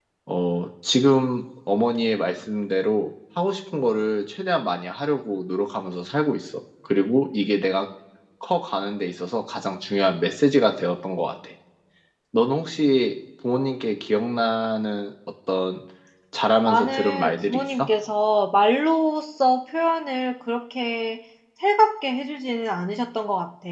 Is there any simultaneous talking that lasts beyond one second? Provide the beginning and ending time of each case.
16.6-17.9

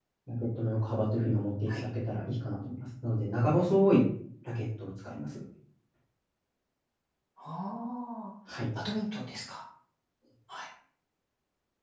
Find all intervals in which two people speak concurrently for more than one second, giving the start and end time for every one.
none

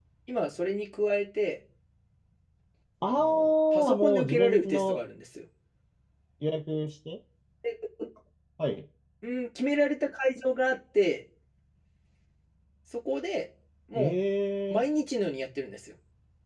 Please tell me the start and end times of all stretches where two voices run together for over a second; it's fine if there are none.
3.1-5.0

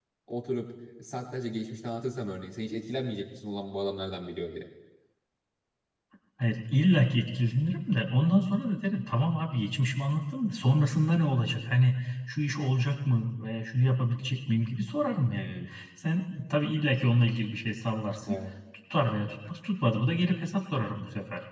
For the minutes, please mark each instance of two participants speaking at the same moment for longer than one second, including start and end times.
none

